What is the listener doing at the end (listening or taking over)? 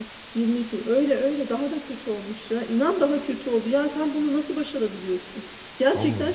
listening